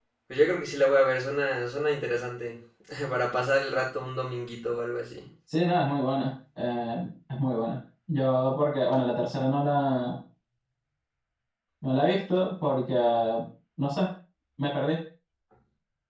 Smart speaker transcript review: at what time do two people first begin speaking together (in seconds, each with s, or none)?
none